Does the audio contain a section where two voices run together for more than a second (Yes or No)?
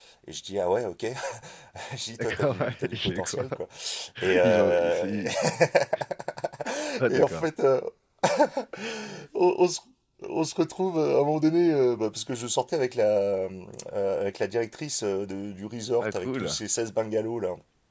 Yes